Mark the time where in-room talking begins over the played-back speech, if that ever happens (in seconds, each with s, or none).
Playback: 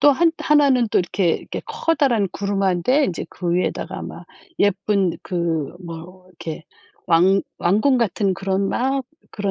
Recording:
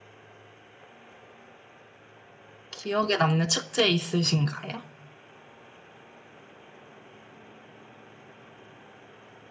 2.7 s